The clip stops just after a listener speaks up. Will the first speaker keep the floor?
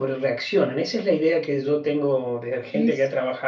Yes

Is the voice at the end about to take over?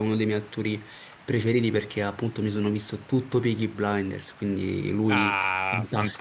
Yes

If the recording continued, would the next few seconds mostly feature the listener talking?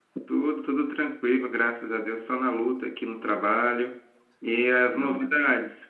No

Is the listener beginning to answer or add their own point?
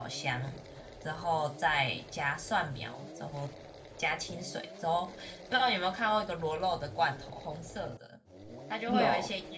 No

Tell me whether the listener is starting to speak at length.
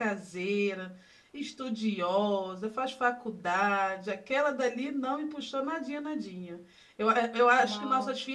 No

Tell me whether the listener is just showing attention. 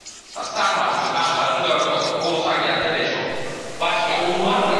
No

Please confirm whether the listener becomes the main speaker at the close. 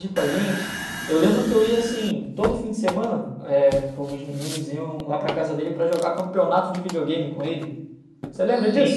Yes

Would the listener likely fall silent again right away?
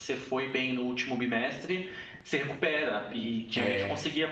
Yes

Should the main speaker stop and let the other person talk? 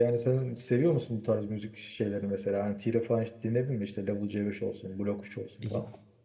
Yes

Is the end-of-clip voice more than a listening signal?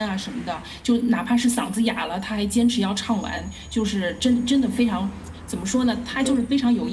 No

